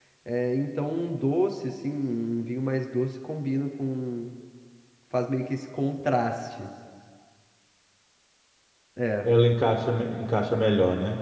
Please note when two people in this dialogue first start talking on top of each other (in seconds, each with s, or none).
none